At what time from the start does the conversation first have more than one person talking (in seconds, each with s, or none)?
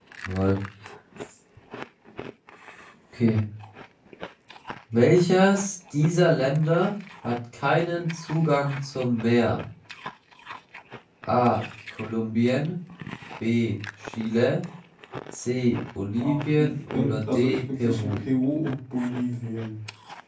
16.2 s